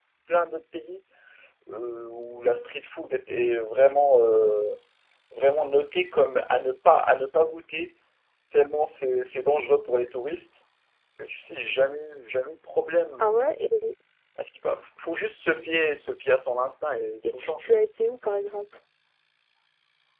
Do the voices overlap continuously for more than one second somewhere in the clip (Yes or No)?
No